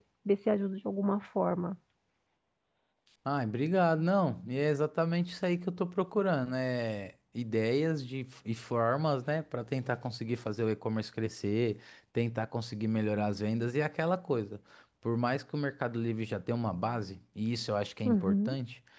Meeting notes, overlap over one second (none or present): none